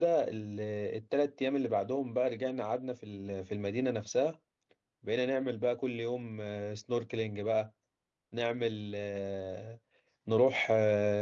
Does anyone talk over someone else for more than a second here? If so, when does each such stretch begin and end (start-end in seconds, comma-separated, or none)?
none